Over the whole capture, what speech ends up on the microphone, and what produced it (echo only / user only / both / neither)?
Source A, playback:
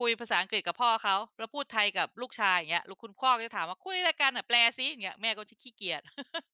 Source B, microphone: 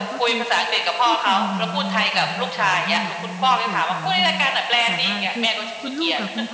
both